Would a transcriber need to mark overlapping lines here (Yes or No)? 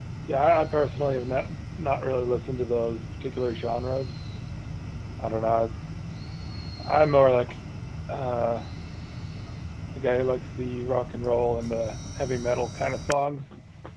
No